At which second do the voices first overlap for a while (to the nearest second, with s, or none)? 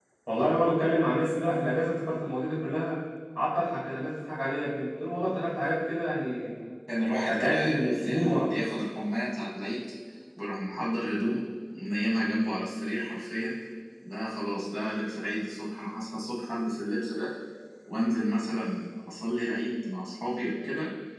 7 s